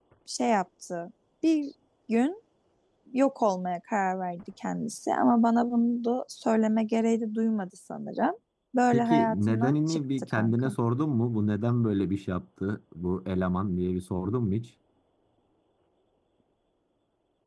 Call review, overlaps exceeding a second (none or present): present